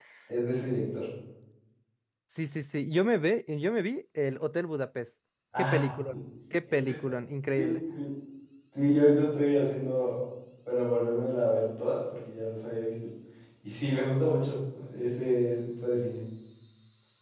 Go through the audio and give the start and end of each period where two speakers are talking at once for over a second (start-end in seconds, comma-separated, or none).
none